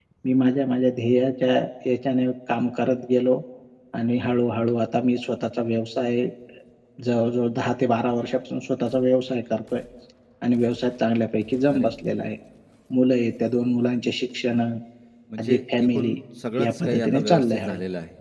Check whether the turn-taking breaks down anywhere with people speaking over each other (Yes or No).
Yes